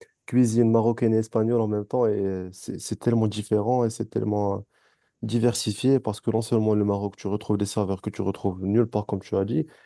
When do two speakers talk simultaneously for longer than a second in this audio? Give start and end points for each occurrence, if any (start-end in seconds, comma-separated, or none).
none